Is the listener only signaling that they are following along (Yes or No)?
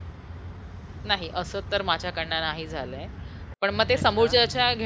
Yes